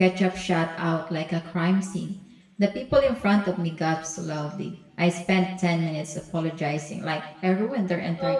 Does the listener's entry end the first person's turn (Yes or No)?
Yes